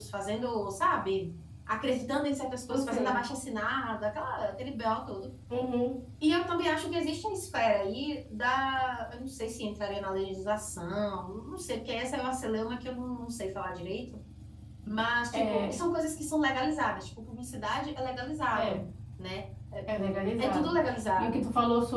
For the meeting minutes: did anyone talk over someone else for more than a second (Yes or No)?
No